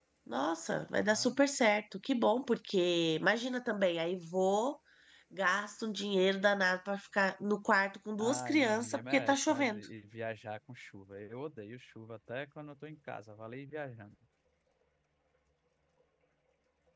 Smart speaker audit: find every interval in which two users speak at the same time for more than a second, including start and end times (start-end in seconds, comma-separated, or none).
8.2-9.8